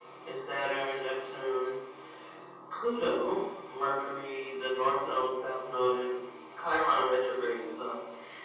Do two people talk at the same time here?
No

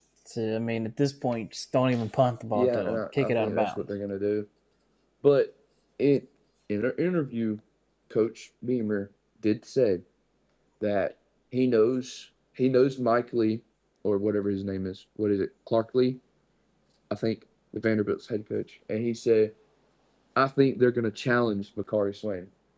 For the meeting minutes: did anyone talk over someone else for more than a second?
Yes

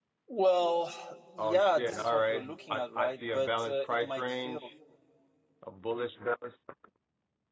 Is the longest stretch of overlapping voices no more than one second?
No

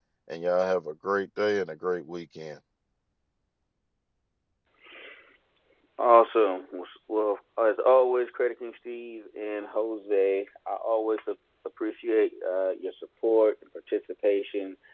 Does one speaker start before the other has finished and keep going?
No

